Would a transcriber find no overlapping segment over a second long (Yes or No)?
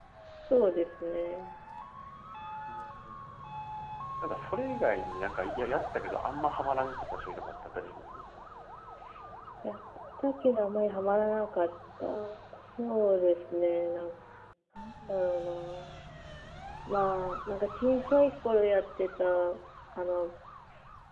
Yes